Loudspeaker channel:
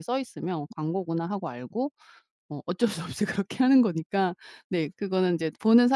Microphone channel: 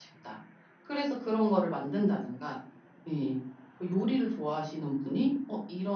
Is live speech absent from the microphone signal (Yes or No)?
No